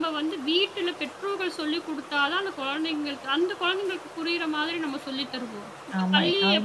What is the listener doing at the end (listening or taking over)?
taking over